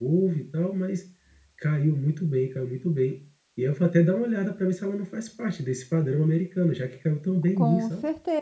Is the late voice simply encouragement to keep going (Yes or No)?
No